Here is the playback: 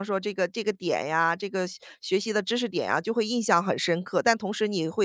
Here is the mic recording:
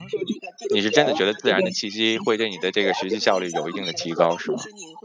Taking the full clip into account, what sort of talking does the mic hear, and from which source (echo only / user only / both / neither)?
both